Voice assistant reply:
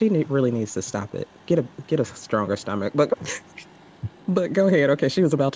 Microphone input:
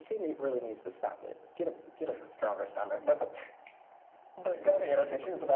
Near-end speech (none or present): present